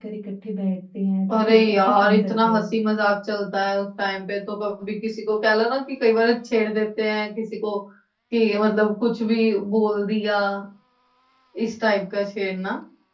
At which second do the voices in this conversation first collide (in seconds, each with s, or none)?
1.3 s